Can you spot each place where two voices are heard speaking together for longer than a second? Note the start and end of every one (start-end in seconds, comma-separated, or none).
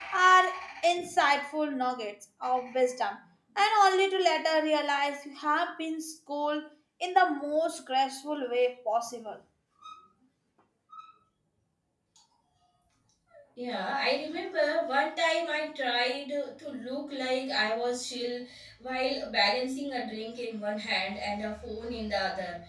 none